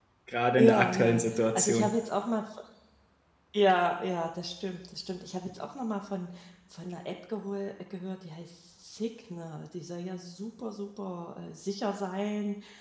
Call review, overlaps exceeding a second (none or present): present